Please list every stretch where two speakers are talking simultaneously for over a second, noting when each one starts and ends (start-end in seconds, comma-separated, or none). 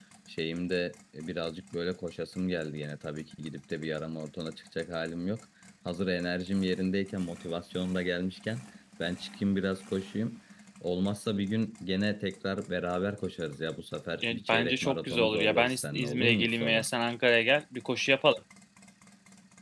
14.2-16.9